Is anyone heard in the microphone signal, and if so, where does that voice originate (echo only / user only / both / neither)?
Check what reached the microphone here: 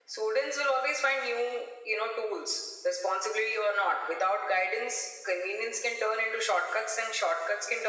echo only